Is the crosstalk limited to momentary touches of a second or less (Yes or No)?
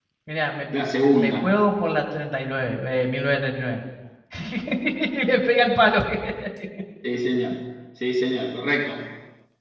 Yes